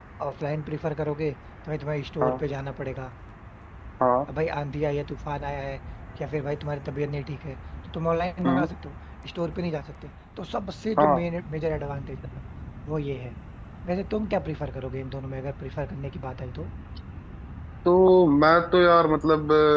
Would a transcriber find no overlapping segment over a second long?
Yes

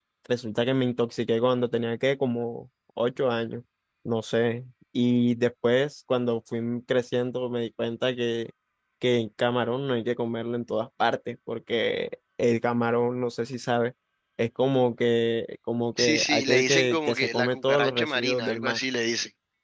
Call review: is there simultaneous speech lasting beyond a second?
Yes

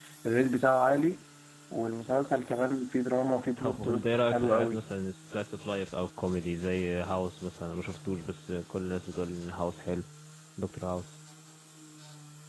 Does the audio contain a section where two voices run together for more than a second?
Yes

